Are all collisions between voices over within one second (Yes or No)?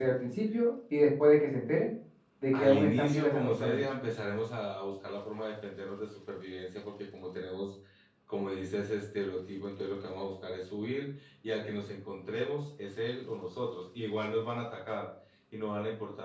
No